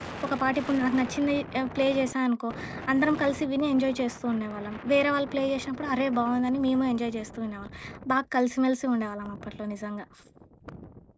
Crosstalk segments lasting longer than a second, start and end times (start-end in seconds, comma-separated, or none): none